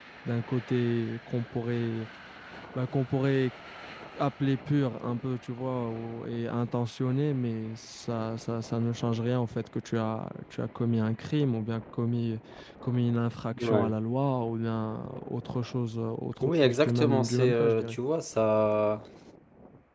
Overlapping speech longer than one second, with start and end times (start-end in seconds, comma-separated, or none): 16.4-18.0